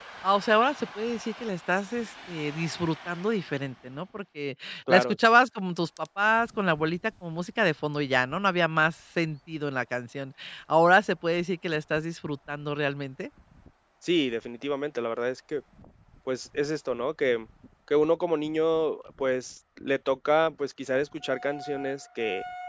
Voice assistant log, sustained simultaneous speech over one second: none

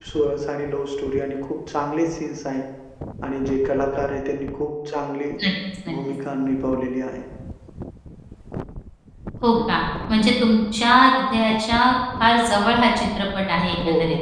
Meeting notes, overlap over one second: none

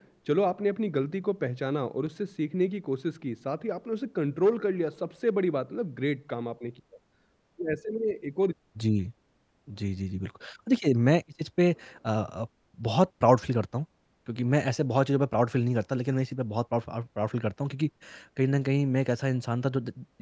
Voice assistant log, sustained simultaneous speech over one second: none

